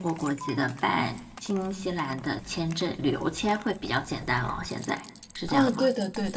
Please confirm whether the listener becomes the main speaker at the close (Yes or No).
Yes